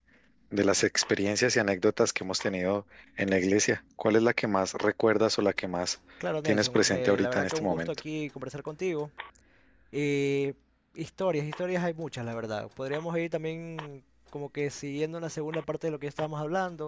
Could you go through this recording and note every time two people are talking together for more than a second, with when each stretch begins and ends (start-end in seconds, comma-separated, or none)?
6.4-7.9